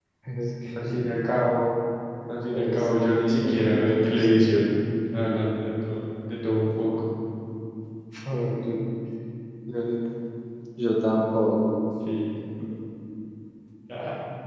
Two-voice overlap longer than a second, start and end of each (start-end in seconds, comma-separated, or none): 3.4-4.7